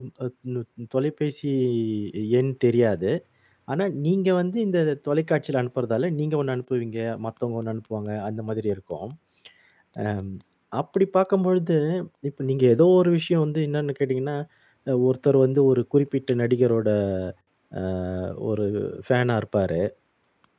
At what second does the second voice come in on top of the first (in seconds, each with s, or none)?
none